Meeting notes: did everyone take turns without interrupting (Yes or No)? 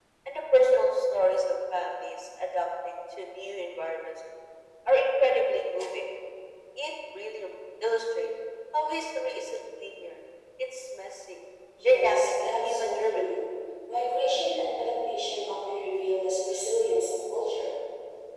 No